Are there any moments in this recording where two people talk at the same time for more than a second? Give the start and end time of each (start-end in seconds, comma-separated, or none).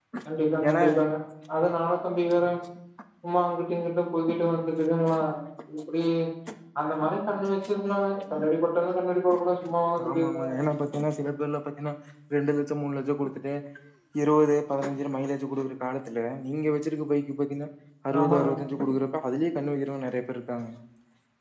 none